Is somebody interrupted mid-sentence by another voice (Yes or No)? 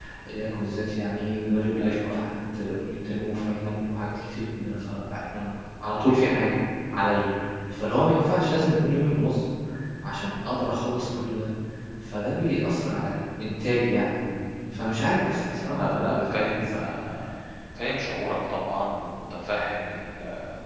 Yes